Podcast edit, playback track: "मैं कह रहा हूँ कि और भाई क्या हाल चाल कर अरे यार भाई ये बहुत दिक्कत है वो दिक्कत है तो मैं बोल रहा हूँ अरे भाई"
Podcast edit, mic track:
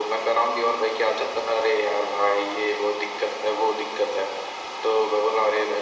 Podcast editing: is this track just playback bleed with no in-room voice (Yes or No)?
Yes